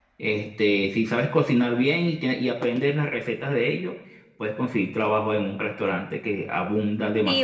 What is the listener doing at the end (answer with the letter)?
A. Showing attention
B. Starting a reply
B